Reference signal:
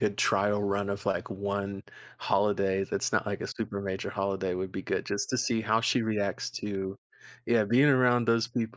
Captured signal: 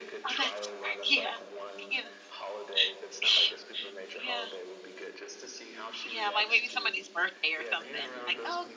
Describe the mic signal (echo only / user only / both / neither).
both